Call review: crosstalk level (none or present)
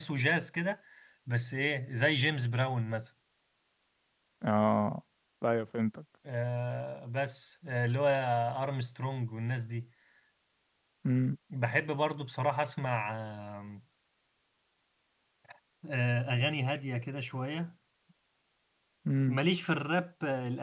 none